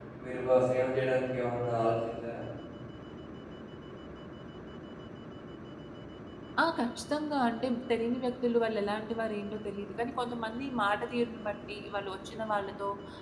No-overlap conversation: Yes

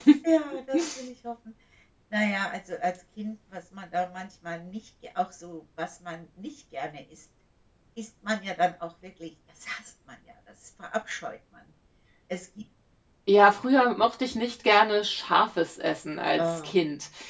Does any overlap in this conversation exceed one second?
No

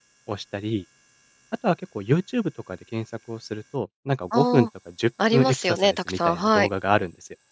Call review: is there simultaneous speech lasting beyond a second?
Yes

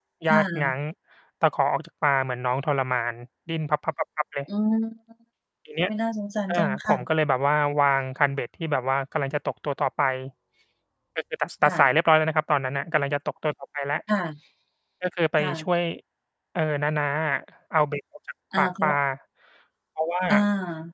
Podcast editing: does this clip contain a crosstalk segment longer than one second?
No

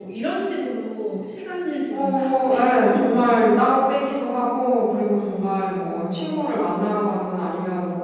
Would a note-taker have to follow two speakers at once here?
Yes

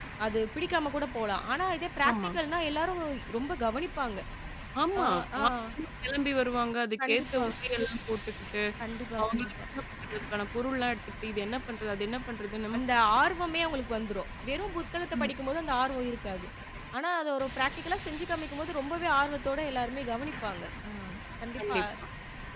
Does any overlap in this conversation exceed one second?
No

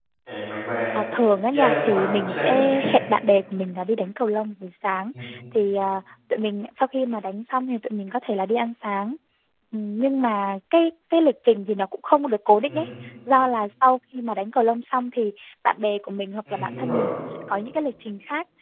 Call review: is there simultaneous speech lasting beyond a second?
Yes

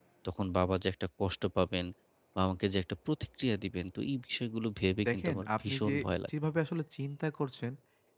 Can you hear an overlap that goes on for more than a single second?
Yes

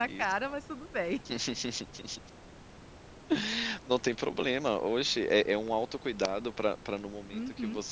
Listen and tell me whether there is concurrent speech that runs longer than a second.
No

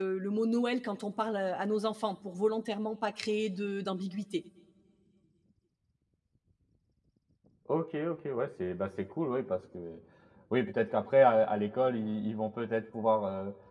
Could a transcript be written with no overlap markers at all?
Yes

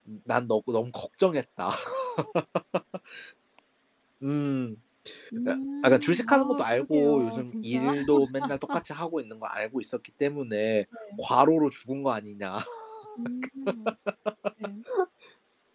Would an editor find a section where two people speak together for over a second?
Yes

